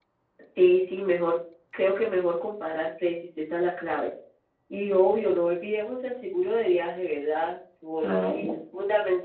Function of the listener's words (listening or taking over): listening